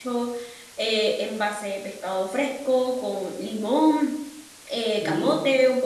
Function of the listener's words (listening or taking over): listening